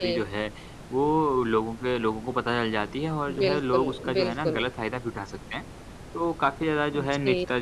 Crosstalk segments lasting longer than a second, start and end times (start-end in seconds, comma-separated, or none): 3.4-4.7